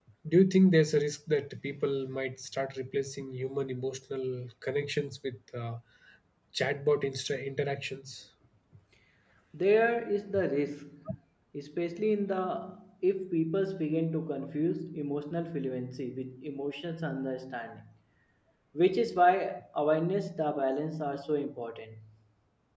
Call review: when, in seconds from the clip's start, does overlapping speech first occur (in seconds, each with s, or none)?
none